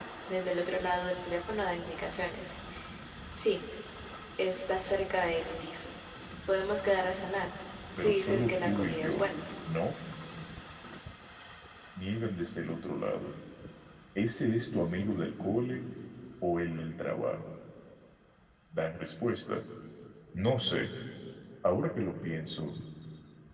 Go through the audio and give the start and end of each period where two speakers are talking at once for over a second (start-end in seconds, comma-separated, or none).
8.0-9.2